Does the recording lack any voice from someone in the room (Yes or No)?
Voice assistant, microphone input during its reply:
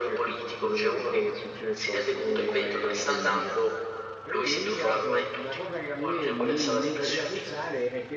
No